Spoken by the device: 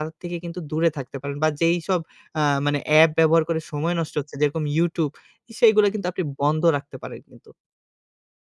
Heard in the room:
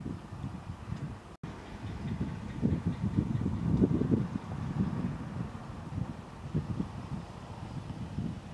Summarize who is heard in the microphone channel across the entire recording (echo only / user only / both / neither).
neither